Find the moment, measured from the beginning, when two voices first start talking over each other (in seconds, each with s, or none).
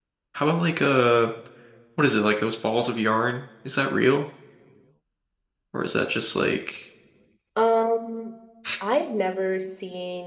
none